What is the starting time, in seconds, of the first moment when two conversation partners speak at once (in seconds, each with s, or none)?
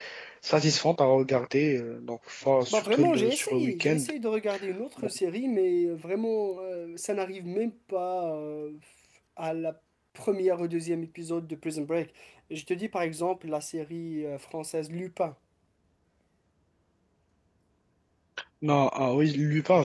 2.7 s